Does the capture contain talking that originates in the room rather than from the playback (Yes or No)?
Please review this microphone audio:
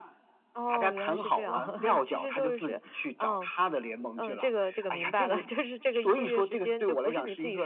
No